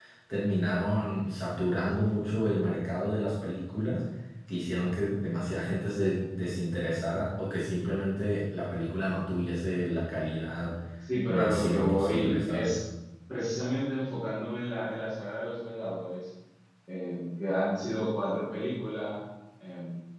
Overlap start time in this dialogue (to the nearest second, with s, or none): 11 s